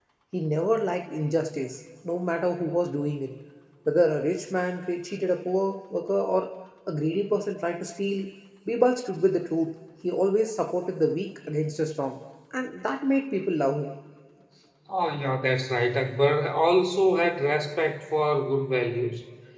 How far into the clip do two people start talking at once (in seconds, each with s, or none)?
none